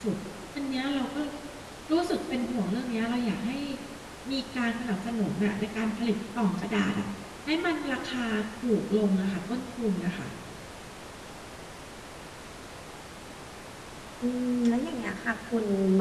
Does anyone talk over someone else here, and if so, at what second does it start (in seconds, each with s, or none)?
none